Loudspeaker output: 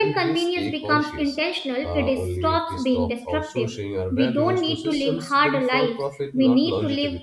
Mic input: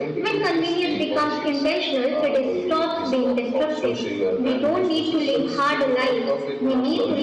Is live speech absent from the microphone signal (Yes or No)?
Yes